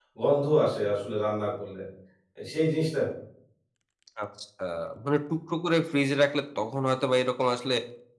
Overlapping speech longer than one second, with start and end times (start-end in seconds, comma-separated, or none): none